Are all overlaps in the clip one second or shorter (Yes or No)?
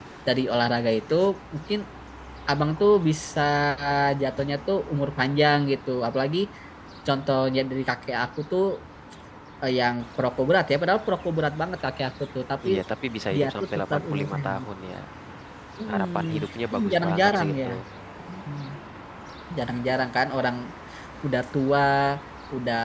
No